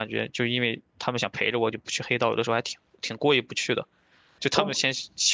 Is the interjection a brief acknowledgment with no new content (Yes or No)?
Yes